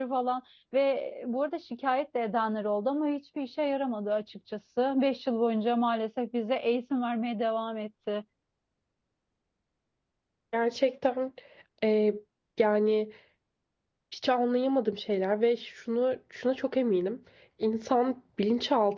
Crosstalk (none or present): none